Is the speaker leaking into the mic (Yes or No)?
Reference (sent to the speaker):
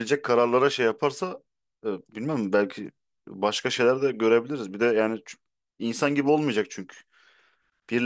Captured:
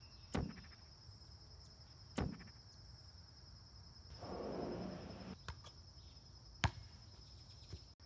No